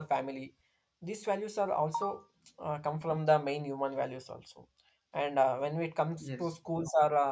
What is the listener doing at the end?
listening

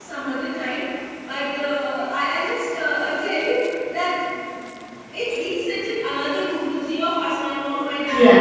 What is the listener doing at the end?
listening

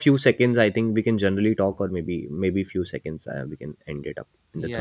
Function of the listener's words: taking over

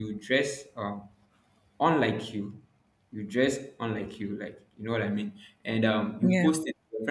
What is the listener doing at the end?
listening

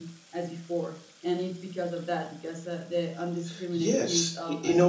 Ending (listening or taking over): taking over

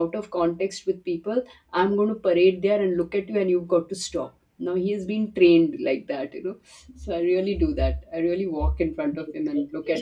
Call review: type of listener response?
taking over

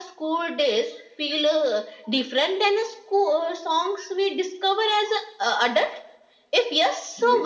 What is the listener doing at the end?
taking over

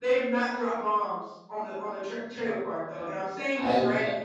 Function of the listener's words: listening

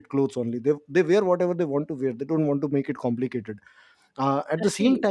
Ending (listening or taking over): listening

